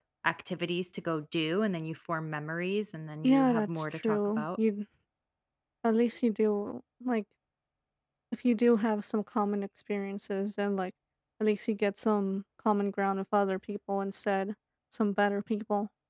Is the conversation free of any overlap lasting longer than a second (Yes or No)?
No